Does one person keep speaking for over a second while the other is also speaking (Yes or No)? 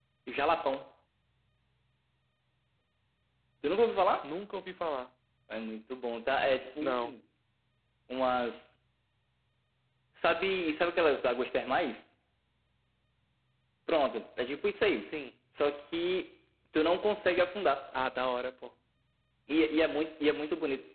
No